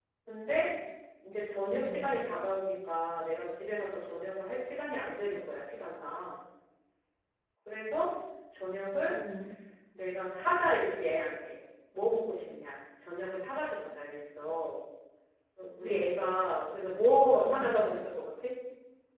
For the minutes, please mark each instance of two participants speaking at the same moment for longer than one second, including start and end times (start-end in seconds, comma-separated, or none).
none